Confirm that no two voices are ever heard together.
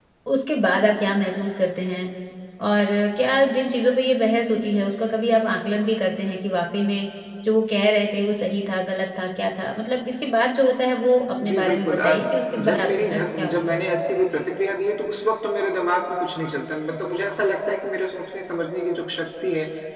No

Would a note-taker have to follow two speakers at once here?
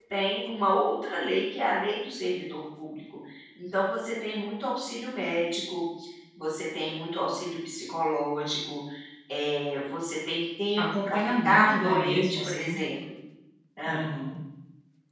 Yes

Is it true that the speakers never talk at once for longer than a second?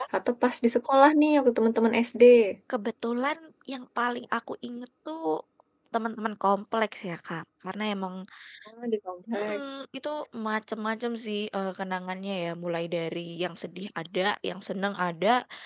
Yes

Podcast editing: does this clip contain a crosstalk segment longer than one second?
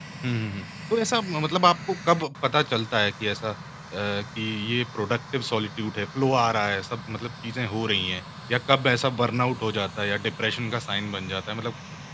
No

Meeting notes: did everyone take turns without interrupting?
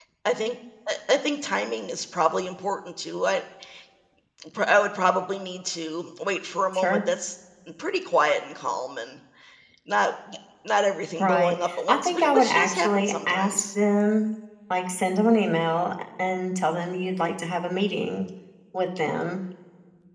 No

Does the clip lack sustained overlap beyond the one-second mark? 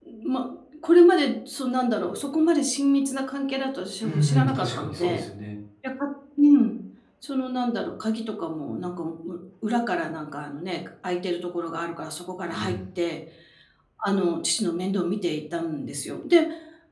No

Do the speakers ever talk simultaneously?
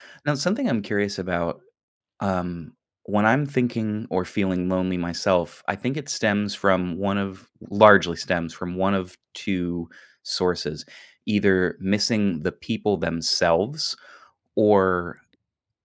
No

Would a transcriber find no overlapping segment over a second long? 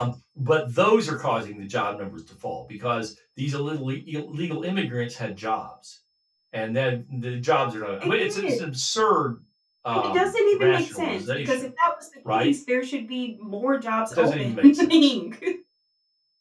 No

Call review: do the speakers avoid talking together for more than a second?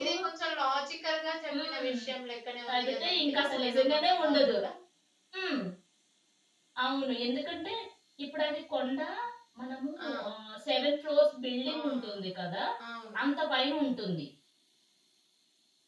No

